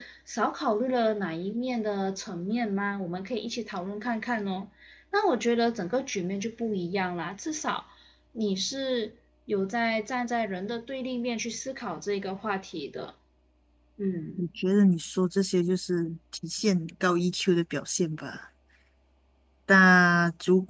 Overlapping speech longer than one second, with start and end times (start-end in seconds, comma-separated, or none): none